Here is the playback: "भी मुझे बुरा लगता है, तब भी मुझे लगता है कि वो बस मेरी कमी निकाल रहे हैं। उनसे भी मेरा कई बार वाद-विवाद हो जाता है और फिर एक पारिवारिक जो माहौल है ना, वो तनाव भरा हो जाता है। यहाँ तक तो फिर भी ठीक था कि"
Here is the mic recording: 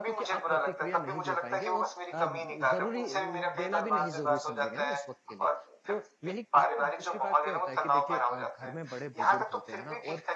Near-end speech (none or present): present